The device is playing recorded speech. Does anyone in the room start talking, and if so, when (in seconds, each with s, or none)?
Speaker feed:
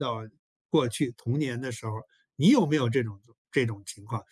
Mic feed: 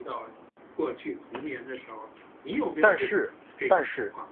2.8 s